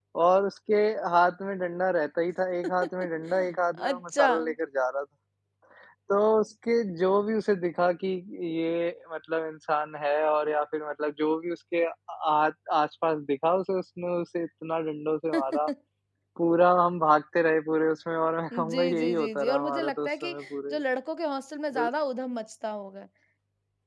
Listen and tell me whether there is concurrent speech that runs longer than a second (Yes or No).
Yes